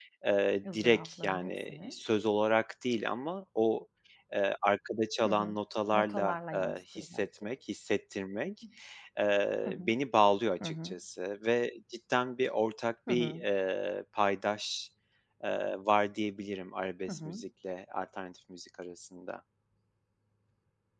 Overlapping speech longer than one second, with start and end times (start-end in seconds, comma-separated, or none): 0.6-1.9, 5.9-7.5